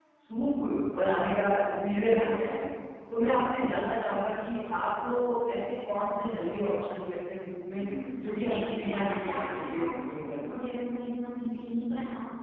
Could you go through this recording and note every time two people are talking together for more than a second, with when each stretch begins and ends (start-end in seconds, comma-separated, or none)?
8.5-10.6